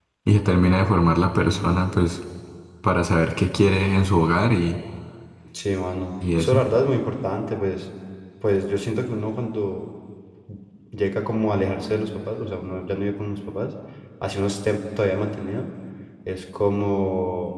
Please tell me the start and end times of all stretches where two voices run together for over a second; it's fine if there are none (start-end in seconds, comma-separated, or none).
none